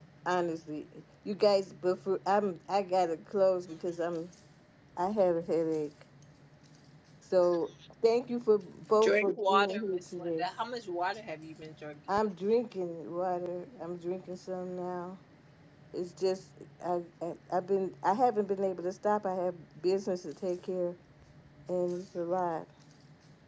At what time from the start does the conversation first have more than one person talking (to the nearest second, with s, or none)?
9 s